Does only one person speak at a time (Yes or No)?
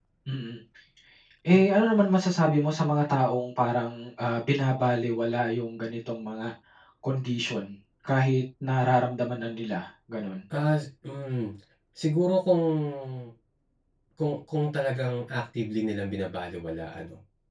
Yes